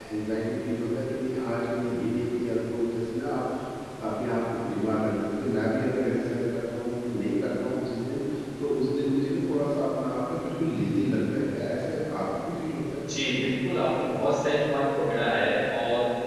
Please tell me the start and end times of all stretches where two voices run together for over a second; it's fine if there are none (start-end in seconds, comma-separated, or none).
none